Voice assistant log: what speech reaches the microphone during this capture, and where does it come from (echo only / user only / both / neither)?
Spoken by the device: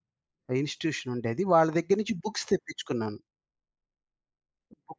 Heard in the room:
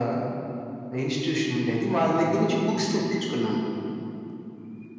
echo only